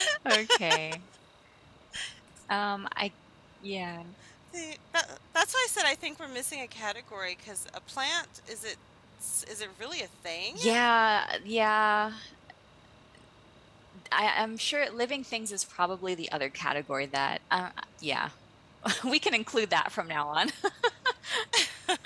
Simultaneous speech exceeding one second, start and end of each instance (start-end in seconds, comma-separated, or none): none